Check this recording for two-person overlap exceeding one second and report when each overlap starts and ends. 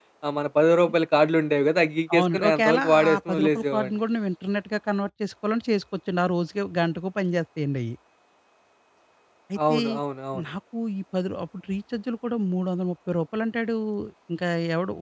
2.2-3.9

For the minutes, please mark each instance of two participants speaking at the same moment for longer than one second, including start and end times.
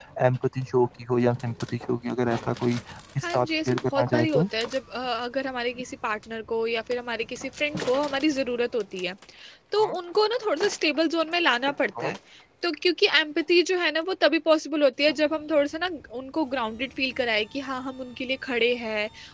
3.2-4.5

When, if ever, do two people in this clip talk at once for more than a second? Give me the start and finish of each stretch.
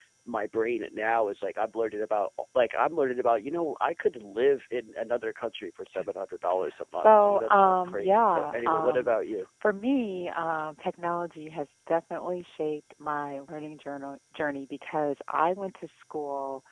7.0-9.2

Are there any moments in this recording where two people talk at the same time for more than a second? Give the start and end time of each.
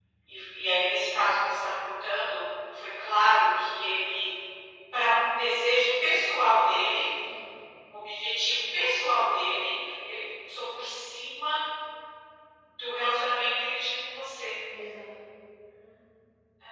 none

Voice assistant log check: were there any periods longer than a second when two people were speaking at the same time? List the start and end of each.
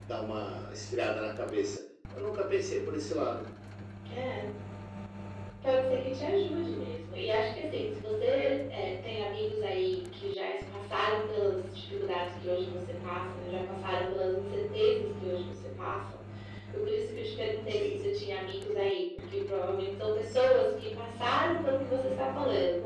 none

